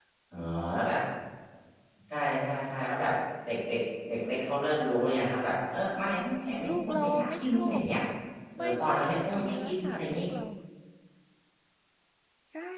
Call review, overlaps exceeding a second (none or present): present